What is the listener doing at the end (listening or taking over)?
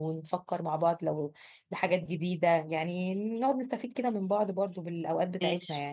taking over